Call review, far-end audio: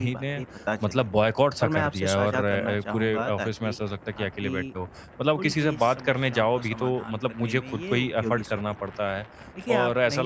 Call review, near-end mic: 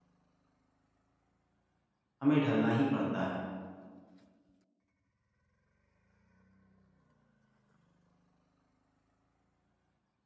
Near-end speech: present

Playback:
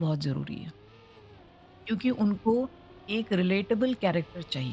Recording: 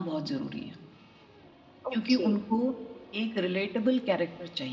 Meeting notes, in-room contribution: present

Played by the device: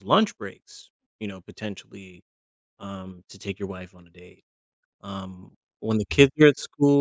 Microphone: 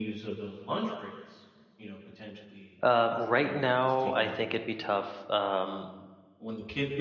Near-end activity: present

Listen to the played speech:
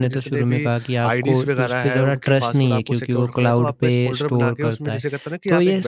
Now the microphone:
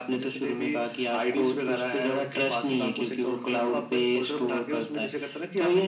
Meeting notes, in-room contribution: none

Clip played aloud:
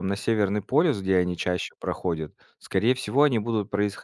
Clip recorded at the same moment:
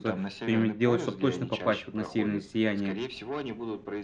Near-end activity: present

